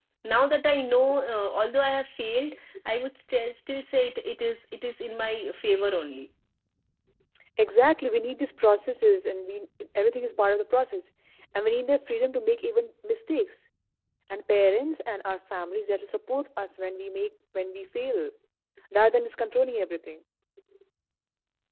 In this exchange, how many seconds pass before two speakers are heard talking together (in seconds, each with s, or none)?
none